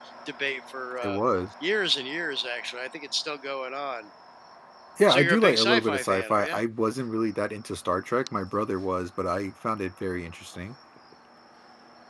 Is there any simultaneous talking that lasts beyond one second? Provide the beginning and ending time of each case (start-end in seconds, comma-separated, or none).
5.1-6.6